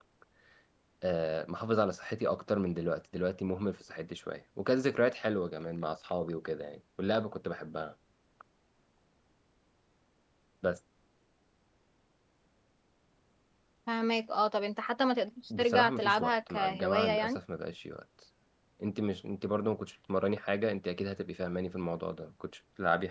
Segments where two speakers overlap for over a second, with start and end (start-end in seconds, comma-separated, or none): 15.6-17.4